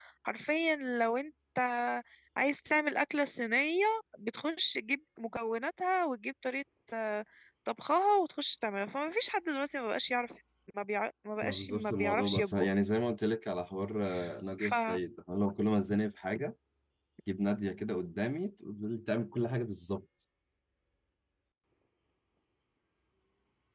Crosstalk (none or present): present